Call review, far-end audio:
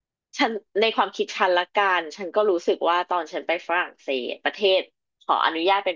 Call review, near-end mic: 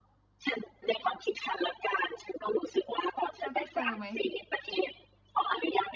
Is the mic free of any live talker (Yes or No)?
No